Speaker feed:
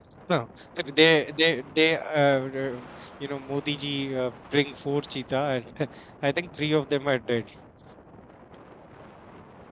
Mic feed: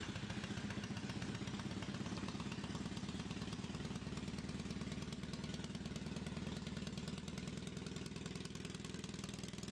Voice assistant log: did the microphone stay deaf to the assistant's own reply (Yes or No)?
Yes